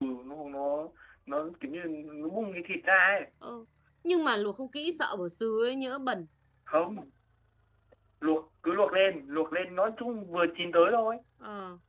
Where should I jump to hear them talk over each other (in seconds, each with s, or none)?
none